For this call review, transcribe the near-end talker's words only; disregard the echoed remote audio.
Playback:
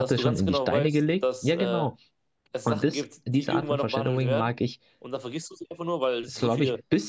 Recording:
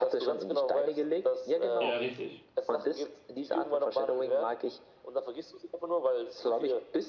Ja, richtig.

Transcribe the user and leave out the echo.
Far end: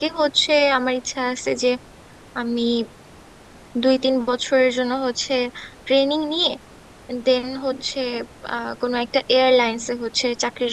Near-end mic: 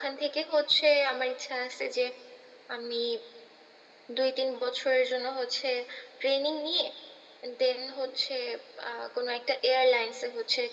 none

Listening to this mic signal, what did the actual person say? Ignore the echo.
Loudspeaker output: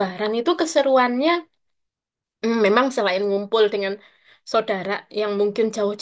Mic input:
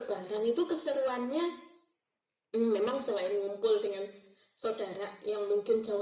none

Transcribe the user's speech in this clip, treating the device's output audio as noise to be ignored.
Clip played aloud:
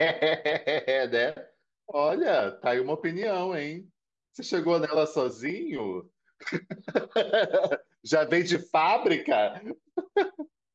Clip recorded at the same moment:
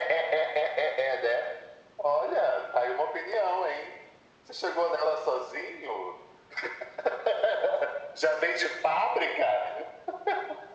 none

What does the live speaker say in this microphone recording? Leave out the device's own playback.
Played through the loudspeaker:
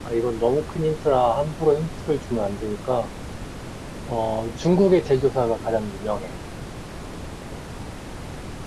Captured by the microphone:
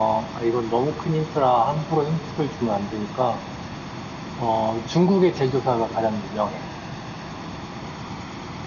none

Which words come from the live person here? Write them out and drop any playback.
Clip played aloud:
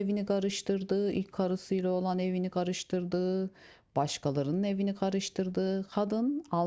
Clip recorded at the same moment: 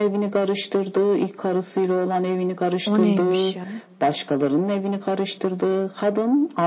O neymiş ya?

